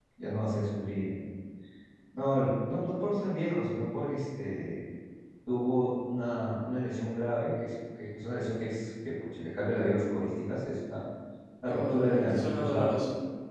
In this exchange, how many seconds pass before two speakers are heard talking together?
12 s

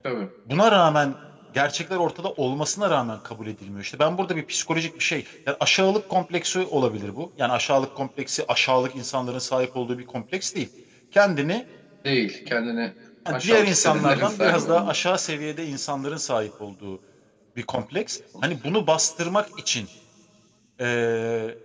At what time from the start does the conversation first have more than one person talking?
13 s

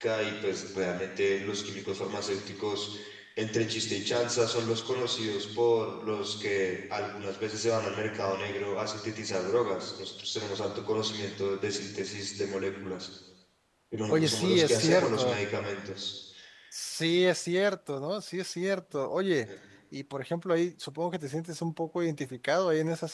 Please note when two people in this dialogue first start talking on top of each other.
14 s

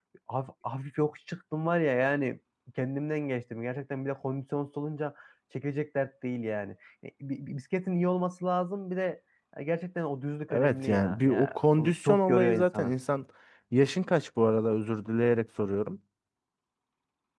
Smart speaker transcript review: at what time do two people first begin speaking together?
11 s

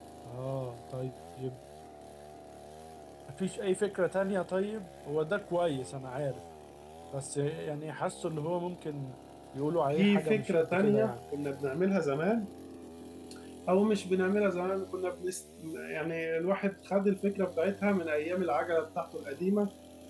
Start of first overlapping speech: 10 s

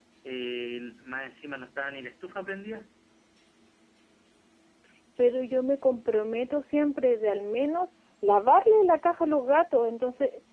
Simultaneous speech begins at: none

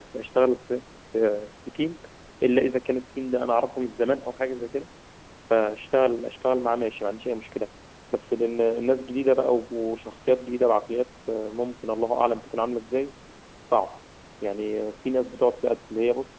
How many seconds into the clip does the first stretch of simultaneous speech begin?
none

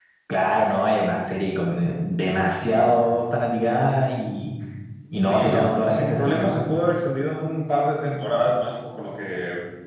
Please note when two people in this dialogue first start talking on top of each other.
5 s

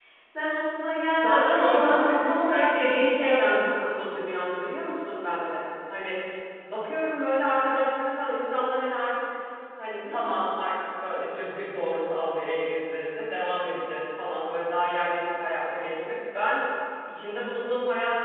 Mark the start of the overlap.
1 s

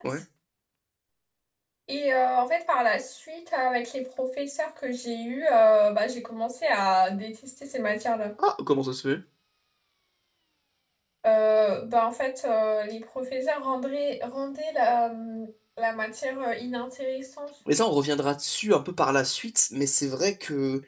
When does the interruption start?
none

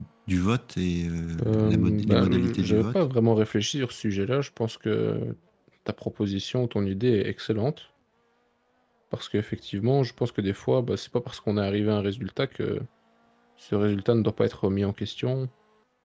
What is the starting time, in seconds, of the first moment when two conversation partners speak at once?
1 s

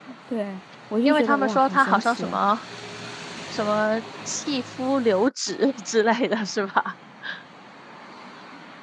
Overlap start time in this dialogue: 1 s

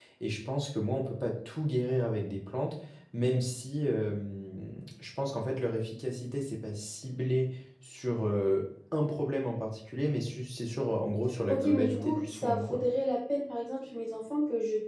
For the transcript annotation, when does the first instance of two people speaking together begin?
11 s

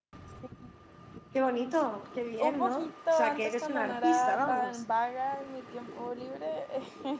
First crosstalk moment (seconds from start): 2 s

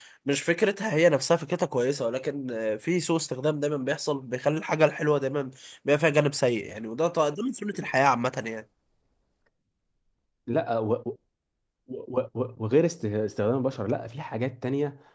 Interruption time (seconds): none

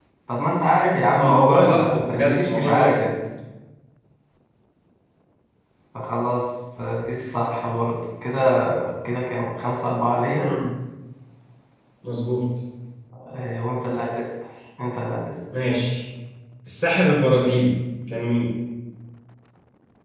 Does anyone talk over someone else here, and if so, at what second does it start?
1 s

